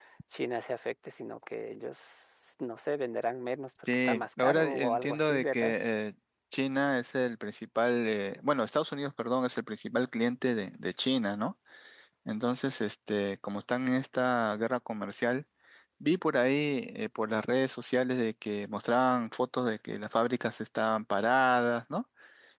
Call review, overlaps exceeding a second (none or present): present